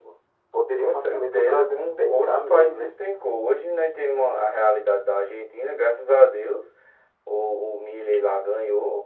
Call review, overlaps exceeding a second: present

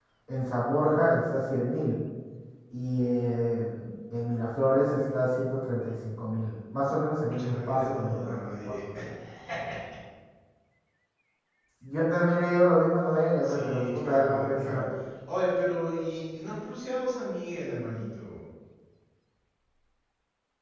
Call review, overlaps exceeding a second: present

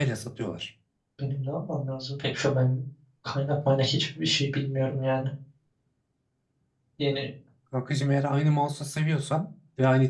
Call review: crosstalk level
none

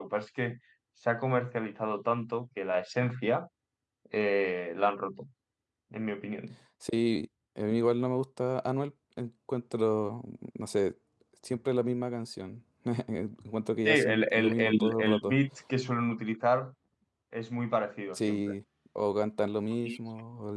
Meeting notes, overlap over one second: present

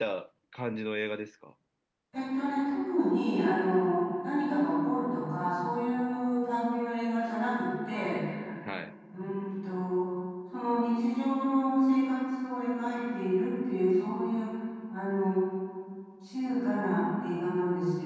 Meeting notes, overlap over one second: none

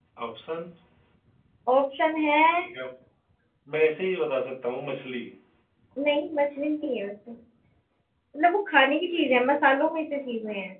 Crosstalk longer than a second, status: none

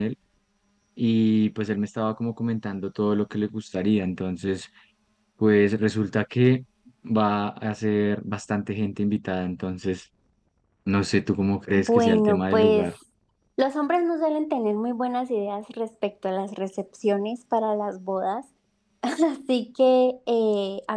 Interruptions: present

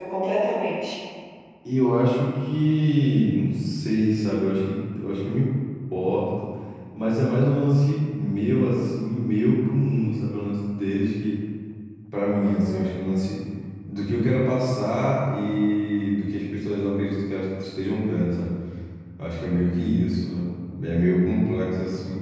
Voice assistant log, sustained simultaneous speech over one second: none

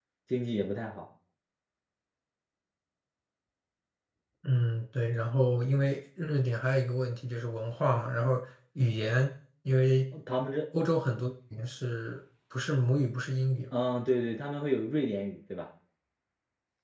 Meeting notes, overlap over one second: none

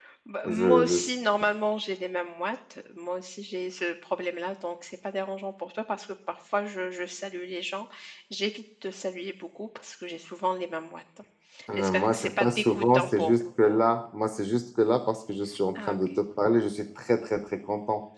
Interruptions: present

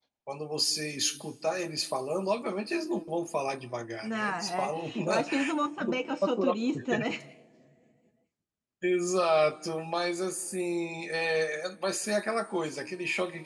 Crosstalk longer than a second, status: present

